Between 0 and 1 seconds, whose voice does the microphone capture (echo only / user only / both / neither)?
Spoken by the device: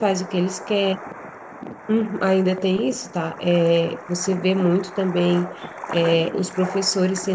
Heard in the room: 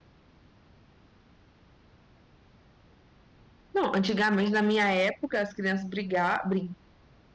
neither